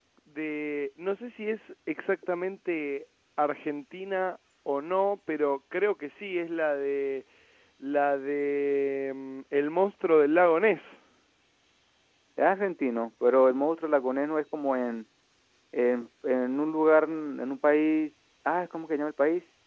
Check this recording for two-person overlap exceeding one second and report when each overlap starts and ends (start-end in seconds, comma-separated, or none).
none